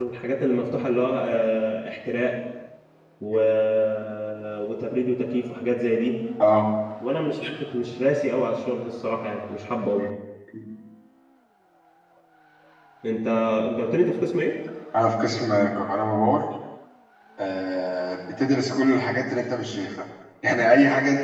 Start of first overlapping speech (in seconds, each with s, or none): none